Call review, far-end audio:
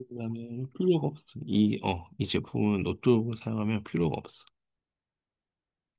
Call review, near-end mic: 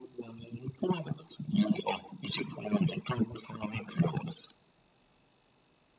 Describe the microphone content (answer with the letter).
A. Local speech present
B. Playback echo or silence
B